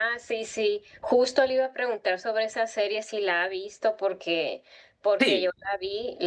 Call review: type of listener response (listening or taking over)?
listening